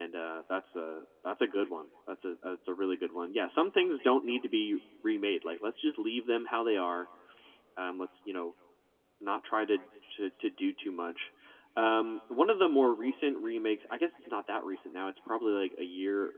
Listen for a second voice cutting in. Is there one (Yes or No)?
No